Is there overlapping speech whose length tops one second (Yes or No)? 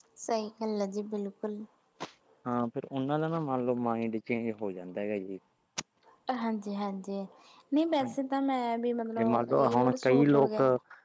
Yes